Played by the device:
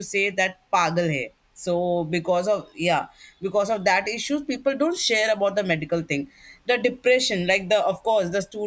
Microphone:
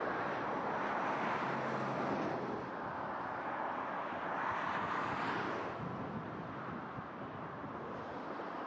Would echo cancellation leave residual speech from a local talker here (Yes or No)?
No